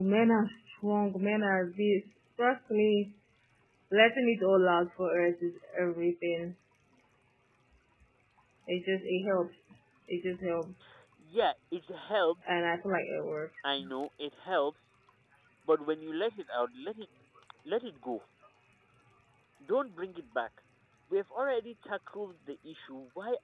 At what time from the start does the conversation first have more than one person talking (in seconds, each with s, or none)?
none